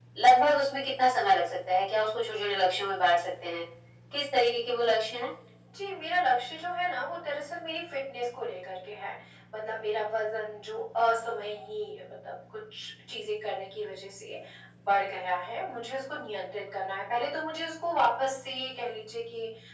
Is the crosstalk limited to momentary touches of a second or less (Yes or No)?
Yes